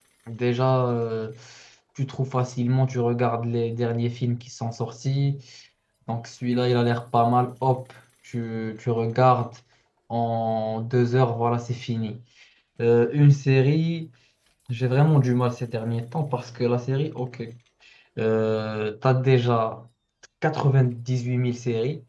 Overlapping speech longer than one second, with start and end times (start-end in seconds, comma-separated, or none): none